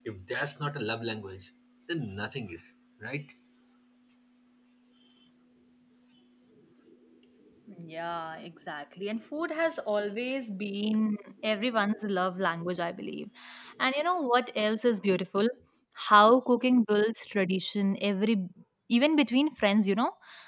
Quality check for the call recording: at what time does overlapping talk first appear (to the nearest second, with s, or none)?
none